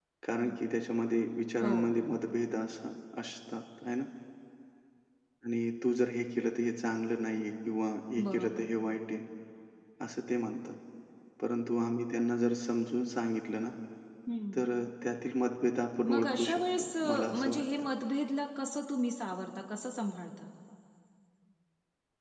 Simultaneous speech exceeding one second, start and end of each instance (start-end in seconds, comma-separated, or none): 16.1-17.6